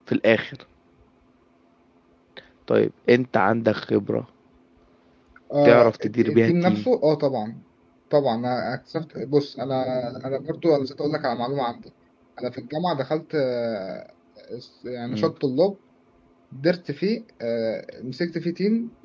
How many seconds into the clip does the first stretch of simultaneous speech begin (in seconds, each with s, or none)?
5.6 s